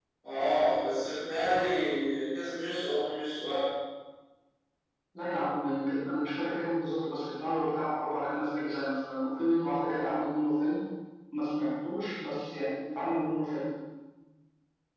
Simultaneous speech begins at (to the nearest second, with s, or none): none